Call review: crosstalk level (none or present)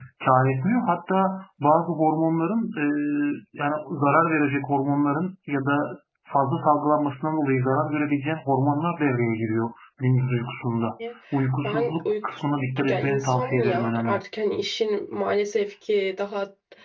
present